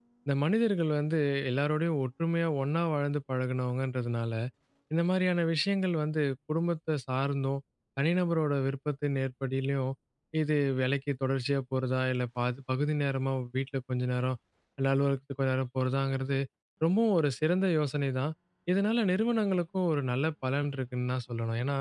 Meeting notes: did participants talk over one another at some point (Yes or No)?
No